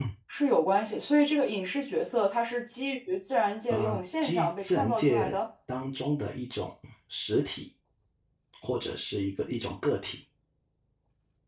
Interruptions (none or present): present